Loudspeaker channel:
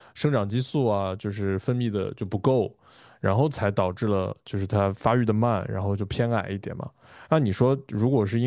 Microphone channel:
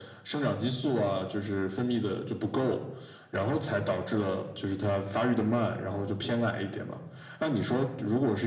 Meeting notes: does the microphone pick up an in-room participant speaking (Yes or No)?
No